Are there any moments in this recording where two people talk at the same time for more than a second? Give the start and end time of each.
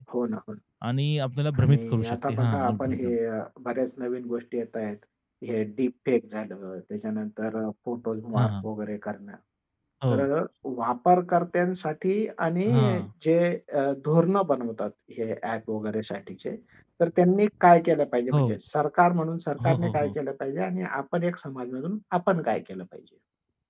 1.6-3.1

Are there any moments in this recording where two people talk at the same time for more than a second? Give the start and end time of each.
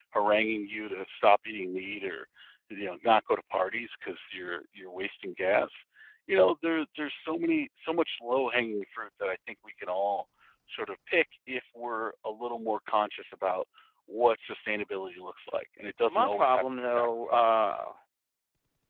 16.1-17.6

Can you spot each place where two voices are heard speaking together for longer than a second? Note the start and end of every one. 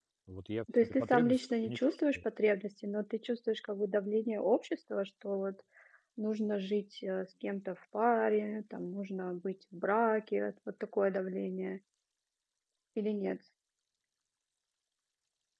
0.8-2.2

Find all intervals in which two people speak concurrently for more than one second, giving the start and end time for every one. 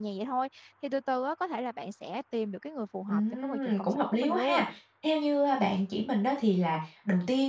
3.1-4.6

